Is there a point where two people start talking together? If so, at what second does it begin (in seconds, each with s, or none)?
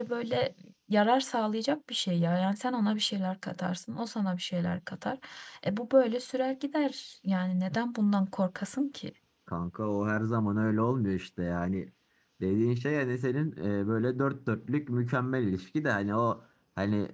none